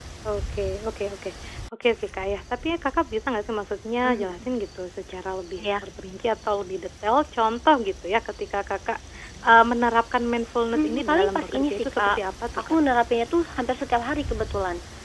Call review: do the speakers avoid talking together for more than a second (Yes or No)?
No